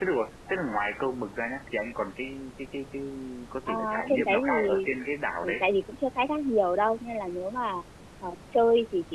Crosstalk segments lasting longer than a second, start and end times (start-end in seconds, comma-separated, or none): 3.7-4.9